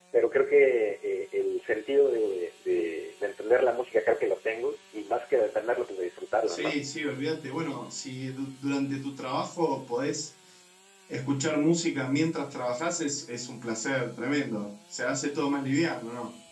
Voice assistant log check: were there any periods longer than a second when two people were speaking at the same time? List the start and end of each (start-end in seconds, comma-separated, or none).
none